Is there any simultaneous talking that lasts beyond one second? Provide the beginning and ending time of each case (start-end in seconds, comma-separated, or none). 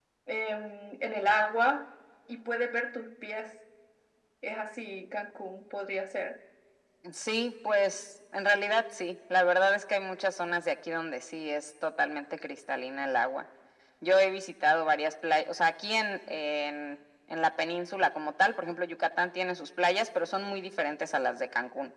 none